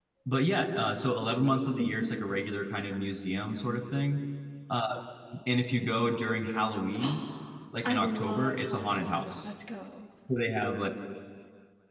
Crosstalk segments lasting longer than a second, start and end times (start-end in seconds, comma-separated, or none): 7.8-9.5